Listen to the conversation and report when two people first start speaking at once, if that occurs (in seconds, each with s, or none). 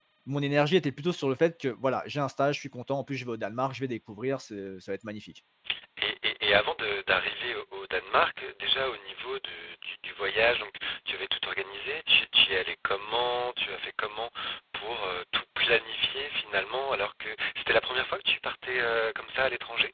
none